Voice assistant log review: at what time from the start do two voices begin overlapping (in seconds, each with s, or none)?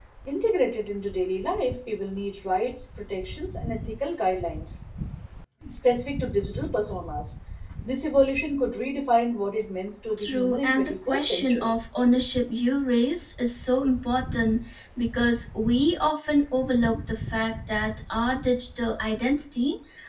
10.2 s